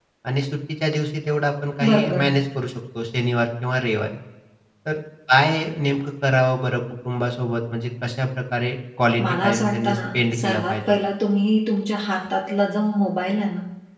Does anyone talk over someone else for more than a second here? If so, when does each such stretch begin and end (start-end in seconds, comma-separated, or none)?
9.2-10.9